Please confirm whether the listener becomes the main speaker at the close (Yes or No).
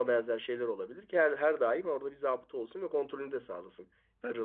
Yes